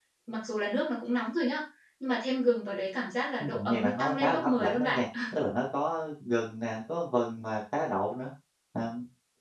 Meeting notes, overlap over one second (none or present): present